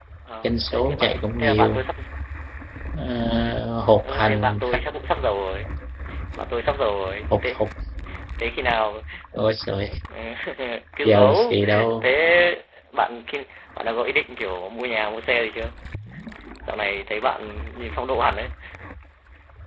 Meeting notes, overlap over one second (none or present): present